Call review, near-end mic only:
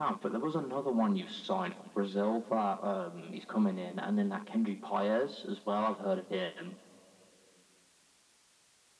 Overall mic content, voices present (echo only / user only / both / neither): echo only